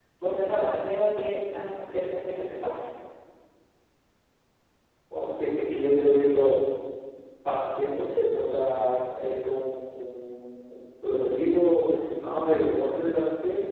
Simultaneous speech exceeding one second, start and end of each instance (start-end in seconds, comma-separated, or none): none